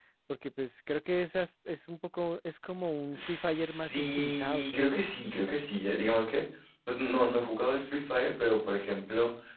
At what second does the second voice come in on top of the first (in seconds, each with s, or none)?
3.1 s